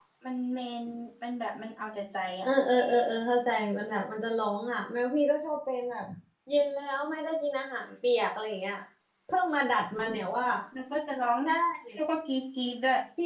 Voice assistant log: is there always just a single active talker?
Yes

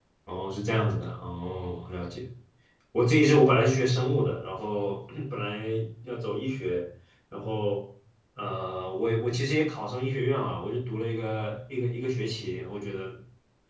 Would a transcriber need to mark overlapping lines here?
No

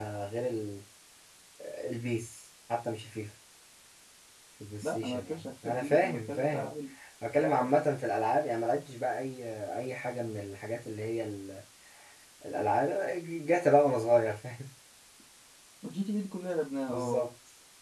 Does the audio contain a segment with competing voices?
Yes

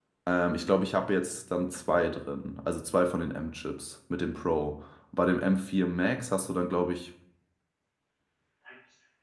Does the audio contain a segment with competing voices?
No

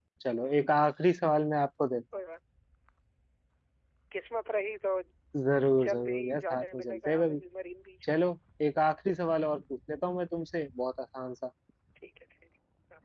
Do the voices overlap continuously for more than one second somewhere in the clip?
Yes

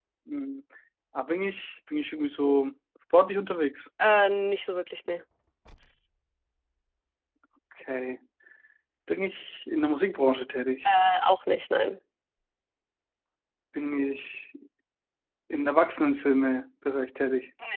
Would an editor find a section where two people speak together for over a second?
No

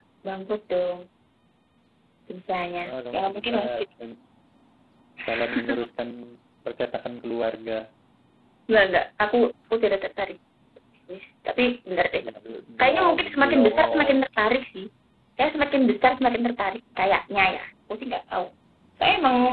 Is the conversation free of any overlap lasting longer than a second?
No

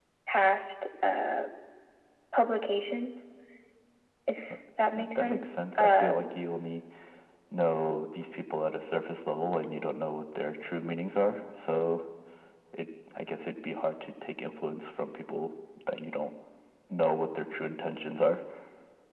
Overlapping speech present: Yes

